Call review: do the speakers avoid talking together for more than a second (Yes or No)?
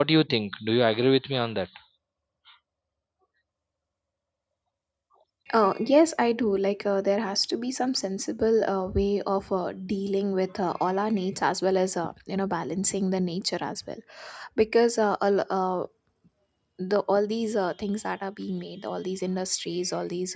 Yes